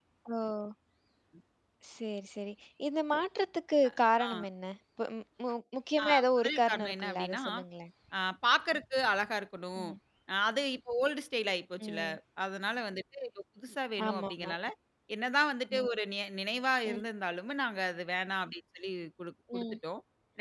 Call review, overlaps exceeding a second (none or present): present